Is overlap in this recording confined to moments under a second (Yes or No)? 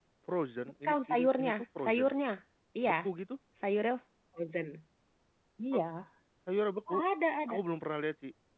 No